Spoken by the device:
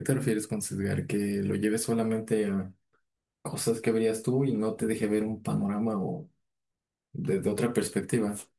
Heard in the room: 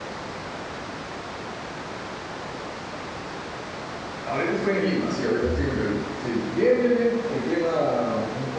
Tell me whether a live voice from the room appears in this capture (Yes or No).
Yes